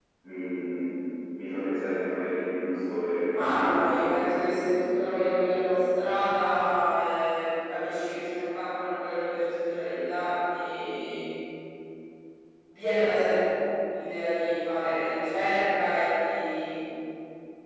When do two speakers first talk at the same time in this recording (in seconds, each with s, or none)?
3.3 s